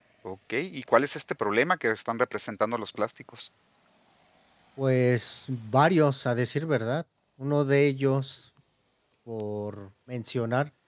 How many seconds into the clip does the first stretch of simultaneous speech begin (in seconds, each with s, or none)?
none